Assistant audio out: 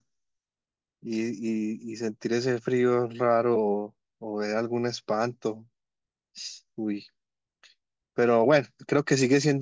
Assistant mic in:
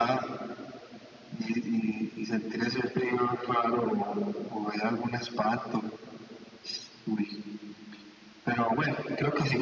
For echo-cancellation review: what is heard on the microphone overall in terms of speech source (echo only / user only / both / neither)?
echo only